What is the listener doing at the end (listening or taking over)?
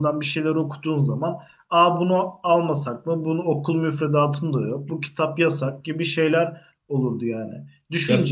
listening